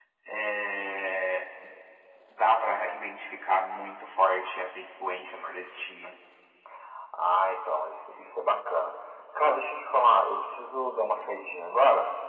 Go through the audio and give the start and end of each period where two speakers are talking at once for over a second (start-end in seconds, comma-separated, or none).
none